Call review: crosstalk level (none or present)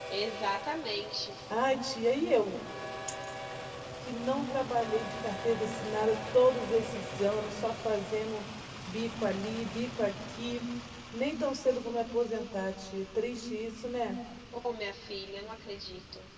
none